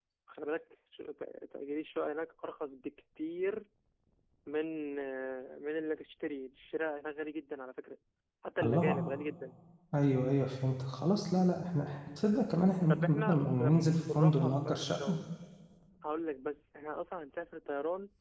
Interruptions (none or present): present